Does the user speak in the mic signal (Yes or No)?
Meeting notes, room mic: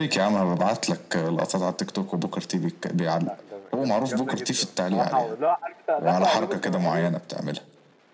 Yes